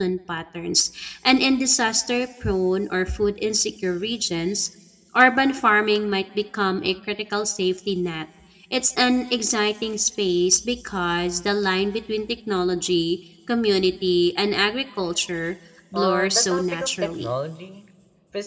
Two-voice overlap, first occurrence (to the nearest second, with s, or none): 16 s